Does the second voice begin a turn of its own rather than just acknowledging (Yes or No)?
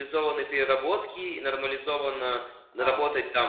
No